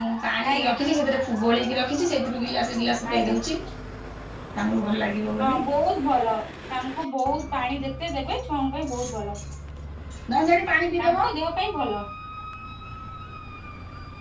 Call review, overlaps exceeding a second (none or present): none